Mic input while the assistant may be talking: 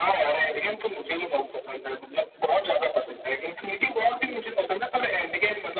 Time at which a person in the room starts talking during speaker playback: none

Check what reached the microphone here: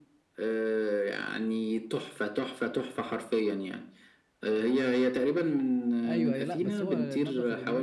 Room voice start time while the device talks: 6 s

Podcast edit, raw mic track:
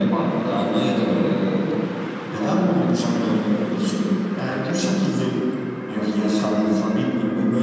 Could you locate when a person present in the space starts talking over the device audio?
none

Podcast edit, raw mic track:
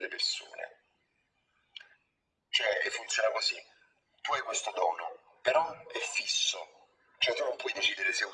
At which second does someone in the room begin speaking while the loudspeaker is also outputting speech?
none

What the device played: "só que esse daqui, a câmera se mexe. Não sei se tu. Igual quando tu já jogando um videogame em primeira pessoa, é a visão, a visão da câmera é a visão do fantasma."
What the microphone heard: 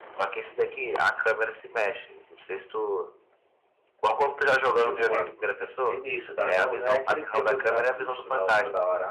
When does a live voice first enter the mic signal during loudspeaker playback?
5 s

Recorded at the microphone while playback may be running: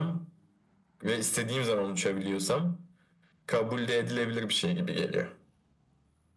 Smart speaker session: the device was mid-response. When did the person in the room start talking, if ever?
none

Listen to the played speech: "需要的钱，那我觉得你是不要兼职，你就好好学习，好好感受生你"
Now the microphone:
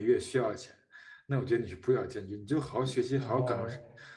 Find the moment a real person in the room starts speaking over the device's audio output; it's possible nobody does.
3 s

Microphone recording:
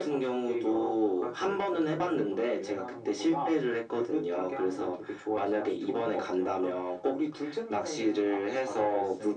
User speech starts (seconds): none

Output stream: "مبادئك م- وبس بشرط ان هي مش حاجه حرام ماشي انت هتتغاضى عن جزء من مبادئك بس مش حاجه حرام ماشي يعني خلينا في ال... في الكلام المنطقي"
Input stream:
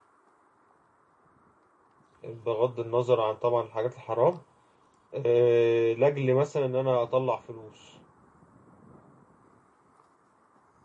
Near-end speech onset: 2 s

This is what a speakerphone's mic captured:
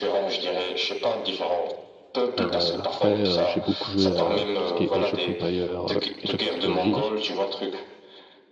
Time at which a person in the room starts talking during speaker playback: 2 s

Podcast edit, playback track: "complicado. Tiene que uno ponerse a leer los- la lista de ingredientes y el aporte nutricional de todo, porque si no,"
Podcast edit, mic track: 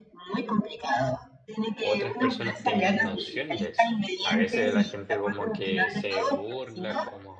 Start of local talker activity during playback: 2 s

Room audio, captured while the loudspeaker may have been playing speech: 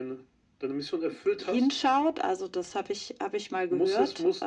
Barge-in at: none

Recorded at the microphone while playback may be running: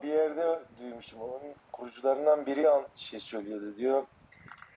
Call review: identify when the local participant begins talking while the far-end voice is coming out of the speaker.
none

